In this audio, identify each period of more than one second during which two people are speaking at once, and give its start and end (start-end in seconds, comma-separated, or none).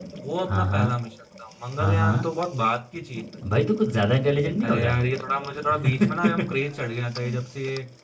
none